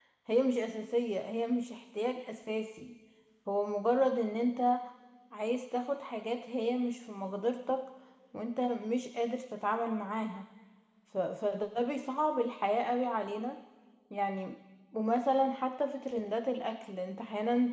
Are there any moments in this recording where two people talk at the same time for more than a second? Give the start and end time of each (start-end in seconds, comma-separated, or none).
none